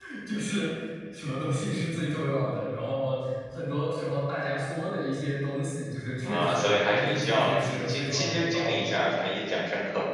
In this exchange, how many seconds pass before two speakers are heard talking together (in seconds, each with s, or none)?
6.2 s